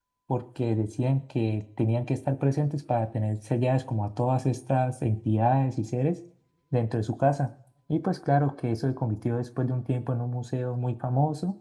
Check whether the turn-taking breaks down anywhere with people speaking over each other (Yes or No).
No